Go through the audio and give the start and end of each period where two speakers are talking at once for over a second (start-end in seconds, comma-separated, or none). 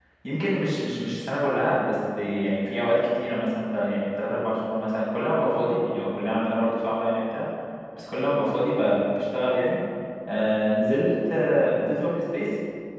none